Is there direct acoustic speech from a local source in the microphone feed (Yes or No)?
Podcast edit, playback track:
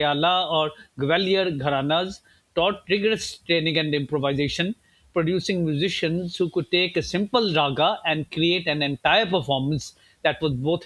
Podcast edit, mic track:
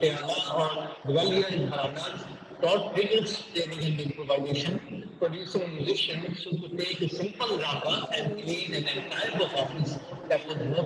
Yes